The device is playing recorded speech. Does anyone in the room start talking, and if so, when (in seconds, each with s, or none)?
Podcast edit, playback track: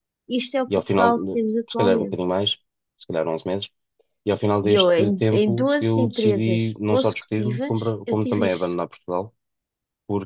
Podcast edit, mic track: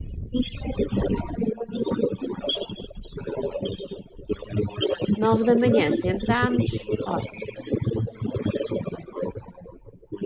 5.1 s